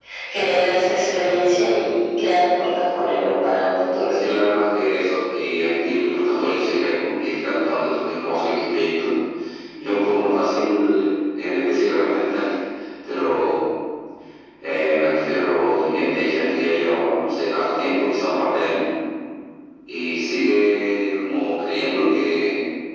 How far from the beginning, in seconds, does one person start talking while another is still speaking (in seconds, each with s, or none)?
none